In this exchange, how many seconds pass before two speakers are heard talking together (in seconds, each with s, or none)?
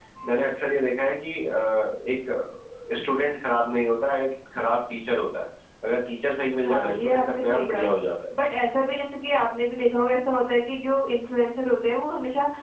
6.6 s